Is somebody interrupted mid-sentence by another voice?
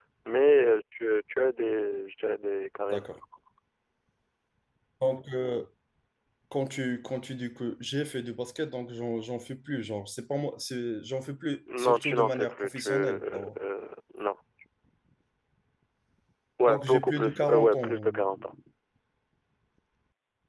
Yes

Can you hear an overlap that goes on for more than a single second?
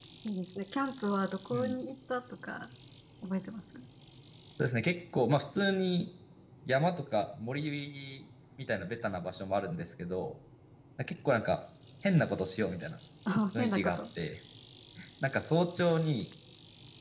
No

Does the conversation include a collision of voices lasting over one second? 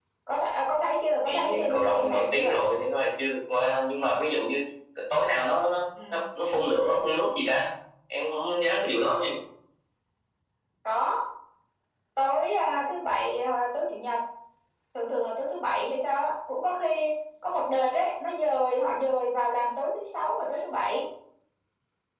Yes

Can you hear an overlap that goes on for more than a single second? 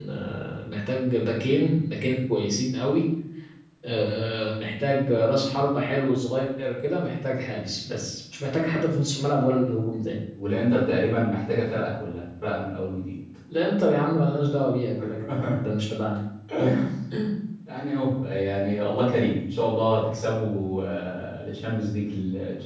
No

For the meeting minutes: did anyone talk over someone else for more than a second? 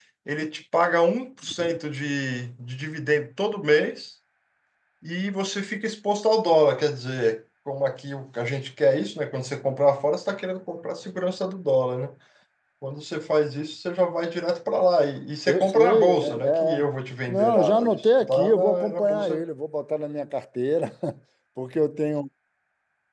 Yes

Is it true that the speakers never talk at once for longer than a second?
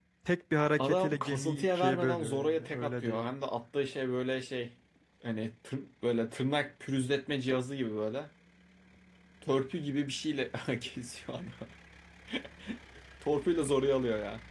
No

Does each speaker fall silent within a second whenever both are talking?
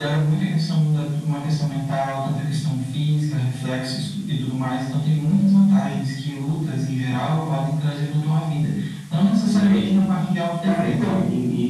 Yes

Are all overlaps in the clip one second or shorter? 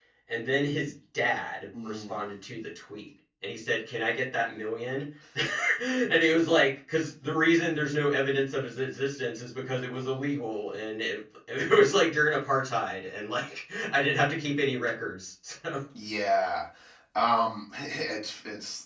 Yes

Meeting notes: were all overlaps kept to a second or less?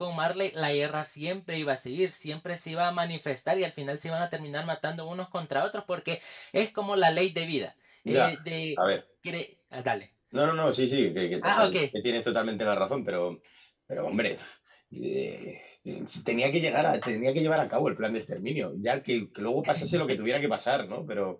Yes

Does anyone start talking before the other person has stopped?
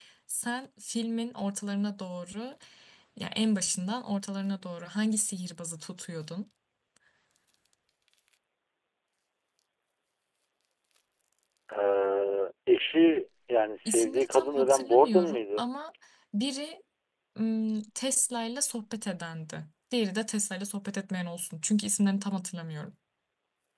Yes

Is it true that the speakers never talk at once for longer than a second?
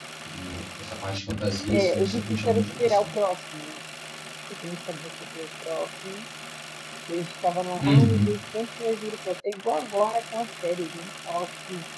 No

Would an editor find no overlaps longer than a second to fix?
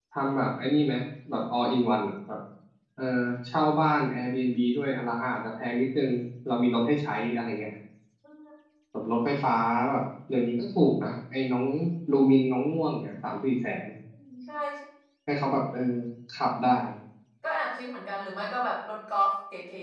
Yes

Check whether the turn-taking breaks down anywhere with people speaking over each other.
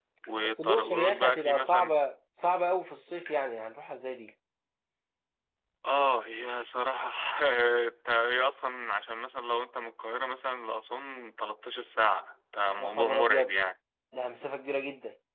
Yes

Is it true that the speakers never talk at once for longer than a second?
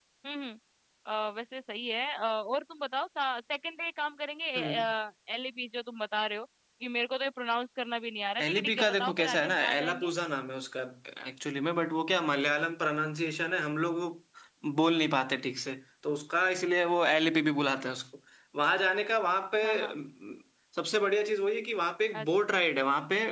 No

